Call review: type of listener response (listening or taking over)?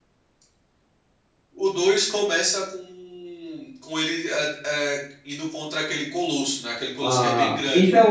taking over